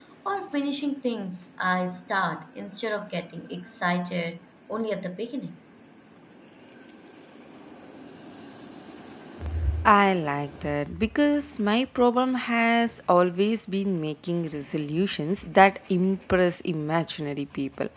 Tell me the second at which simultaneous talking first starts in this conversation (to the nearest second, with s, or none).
none